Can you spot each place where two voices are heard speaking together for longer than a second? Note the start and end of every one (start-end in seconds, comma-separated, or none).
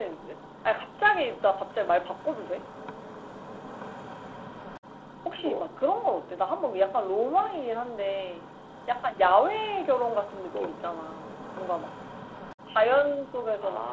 none